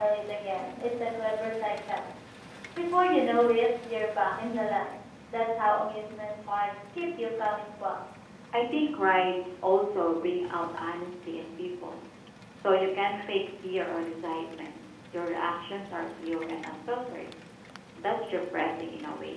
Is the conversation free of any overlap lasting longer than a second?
Yes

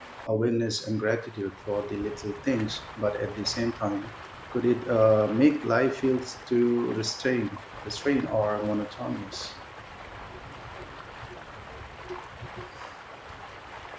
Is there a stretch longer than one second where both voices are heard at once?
No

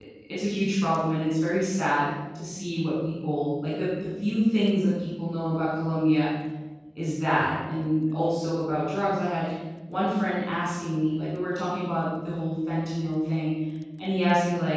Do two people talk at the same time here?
No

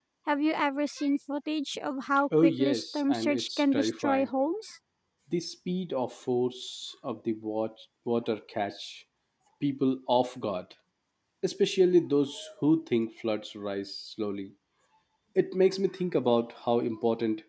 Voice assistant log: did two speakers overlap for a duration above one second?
Yes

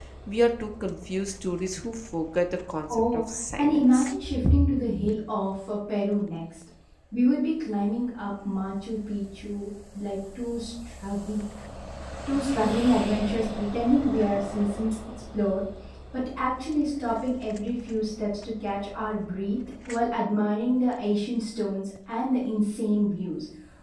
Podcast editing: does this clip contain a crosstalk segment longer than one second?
Yes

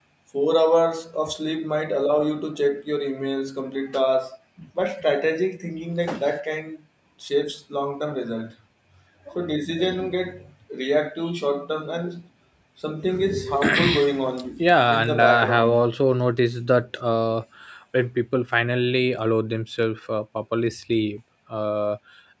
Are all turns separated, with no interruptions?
No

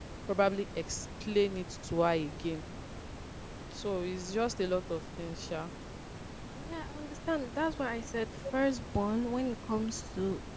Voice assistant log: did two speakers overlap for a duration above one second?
No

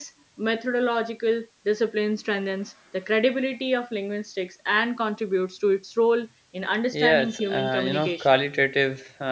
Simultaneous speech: Yes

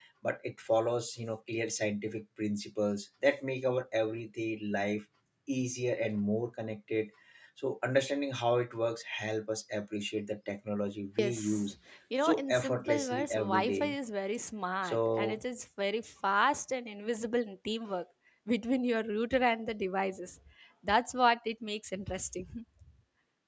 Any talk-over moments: Yes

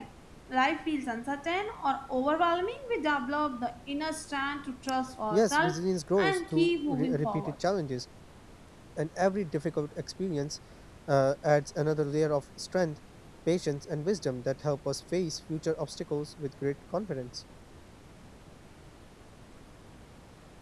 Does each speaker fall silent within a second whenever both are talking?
No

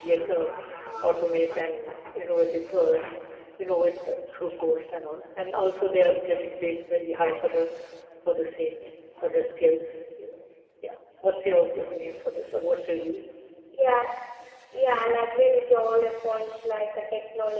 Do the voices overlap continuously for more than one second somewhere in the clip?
No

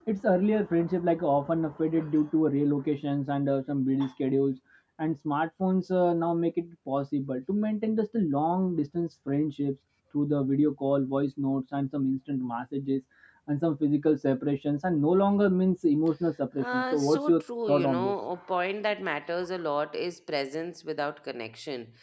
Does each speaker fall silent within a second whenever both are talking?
No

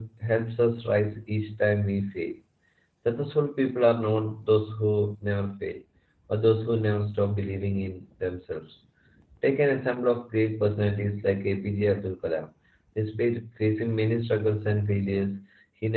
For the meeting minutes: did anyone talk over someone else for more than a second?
No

